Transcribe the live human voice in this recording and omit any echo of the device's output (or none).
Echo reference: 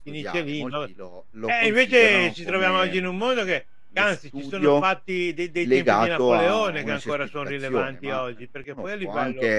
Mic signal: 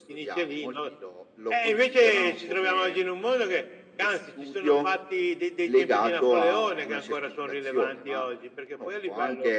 none